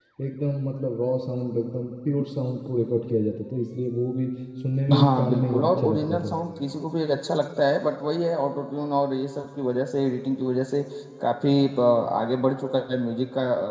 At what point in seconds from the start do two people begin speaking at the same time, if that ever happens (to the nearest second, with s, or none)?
5 s